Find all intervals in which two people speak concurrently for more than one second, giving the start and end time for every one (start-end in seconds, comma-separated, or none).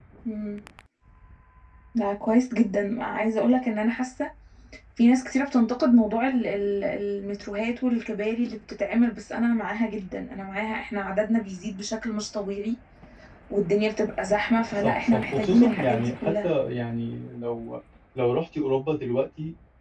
14.8-16.5